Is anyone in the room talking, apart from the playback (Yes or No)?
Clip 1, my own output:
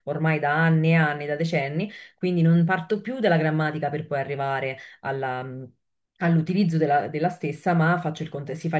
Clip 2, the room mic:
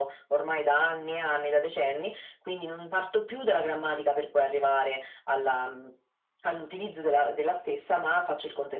No